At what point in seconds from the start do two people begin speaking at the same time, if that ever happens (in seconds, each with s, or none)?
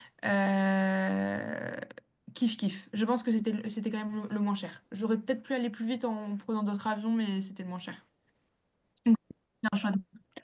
none